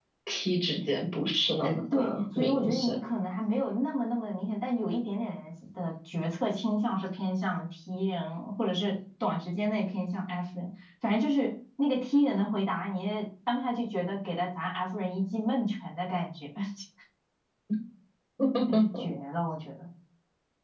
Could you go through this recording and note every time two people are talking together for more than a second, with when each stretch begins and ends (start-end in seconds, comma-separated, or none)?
1.6-3.0